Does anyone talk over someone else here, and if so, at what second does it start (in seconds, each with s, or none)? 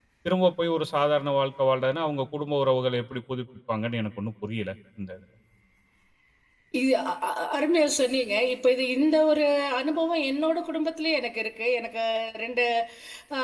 none